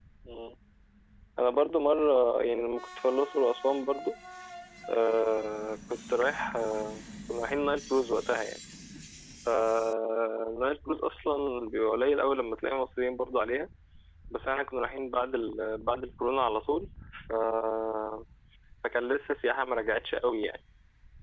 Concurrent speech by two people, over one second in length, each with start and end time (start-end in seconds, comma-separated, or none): none